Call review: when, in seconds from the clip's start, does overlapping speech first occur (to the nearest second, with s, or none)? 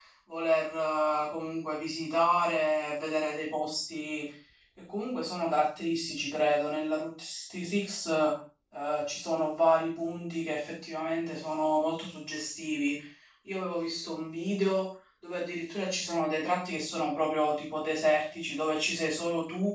none